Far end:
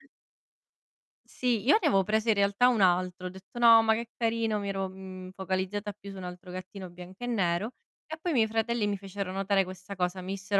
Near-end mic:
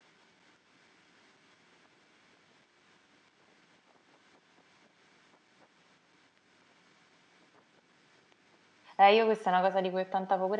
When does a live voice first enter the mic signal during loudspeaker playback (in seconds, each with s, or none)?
9.0 s